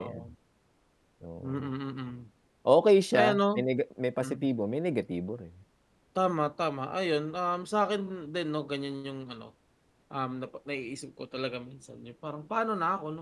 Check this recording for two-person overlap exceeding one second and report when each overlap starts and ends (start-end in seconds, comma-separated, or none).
none